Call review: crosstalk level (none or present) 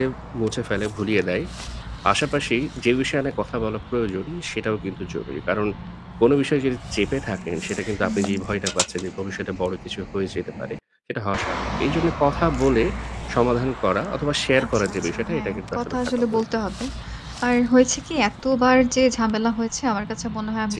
present